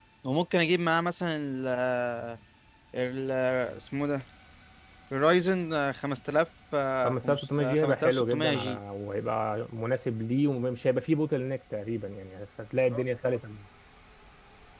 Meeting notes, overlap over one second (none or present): present